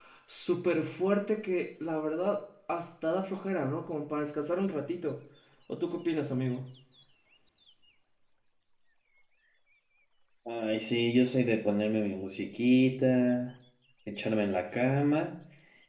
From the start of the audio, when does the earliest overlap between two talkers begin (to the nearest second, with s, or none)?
none